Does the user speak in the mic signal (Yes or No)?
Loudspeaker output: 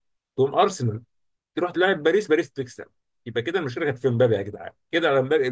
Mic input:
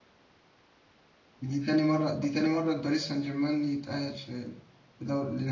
Yes